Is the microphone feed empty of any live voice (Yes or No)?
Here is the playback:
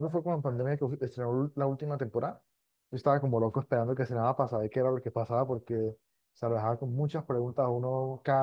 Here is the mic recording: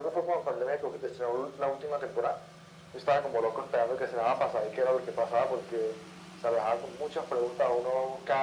Yes